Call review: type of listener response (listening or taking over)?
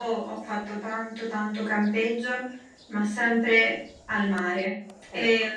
listening